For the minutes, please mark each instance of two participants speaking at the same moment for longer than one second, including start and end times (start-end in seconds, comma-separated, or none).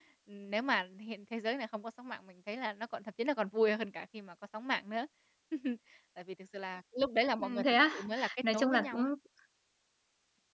7.4-9.1